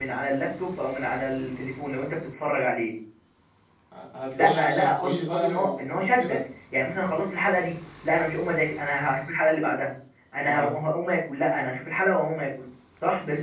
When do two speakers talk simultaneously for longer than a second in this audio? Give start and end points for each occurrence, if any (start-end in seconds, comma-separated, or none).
4.3-6.4